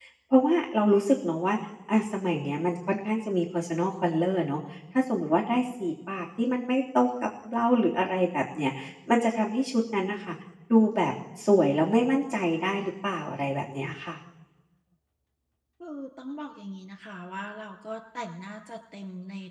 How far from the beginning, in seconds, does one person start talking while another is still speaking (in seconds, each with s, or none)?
none